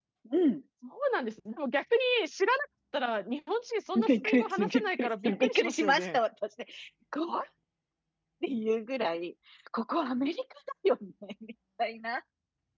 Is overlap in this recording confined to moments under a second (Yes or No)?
No